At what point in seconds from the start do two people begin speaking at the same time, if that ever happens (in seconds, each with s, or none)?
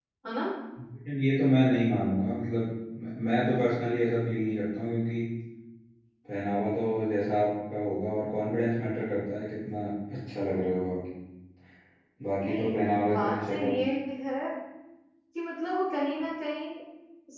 12.4 s